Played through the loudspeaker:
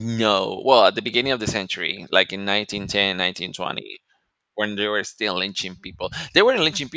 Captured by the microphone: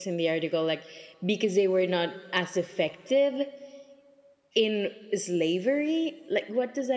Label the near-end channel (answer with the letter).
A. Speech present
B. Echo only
A